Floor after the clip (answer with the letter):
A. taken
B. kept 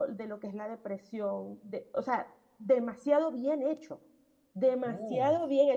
B